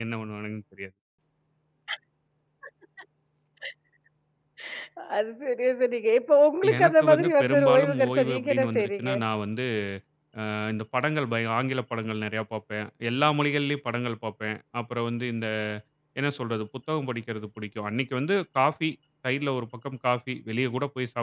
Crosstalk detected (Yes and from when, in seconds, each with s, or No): Yes, from 6.6 s